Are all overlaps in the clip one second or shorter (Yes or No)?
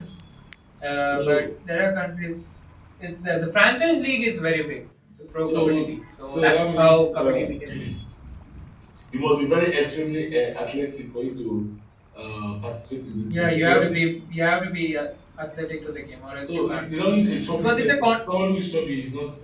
No